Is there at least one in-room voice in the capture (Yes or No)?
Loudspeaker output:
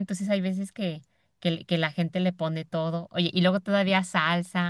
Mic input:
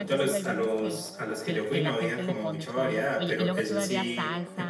Yes